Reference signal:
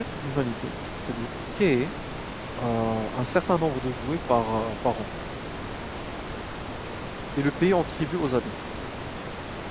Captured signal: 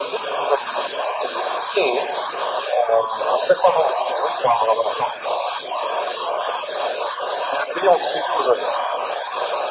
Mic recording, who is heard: echo only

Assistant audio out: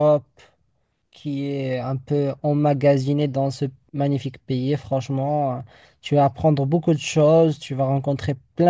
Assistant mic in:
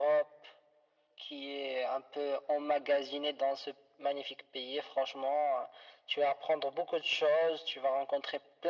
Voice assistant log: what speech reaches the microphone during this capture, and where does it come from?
echo only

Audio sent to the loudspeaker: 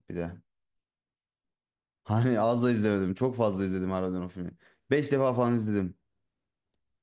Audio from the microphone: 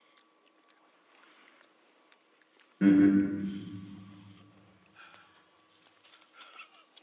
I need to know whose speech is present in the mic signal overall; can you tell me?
user only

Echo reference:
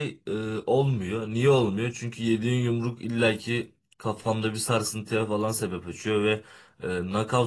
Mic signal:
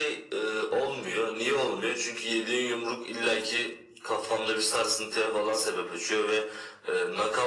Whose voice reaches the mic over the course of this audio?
echo only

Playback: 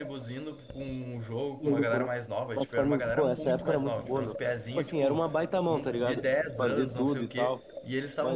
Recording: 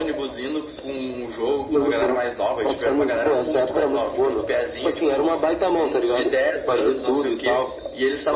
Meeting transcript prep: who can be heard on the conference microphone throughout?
echo only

